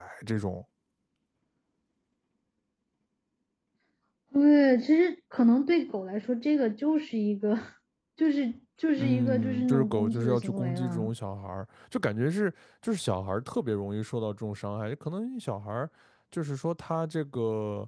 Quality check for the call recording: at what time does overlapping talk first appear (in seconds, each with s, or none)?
9.0 s